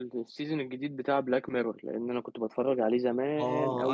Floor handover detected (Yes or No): Yes